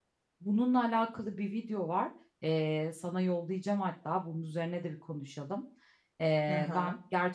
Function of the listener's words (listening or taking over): listening